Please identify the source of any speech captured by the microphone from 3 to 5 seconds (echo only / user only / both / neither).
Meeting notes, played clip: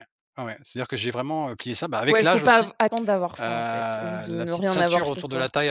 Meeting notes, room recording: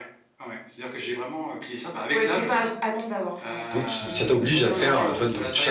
both